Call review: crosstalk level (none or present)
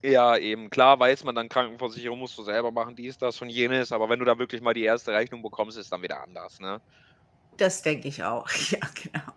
none